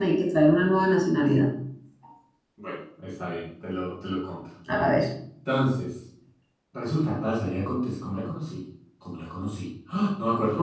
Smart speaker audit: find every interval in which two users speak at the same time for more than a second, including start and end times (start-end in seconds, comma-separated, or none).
none